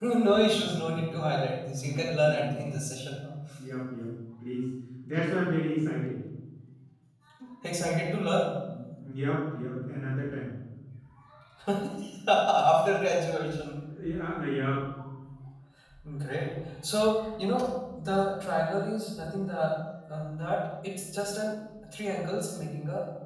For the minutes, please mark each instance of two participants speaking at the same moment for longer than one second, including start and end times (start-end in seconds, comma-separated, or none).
0.5-2.7